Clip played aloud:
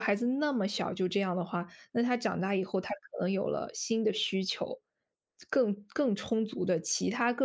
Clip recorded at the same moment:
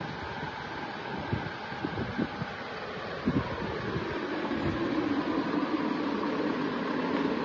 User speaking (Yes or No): No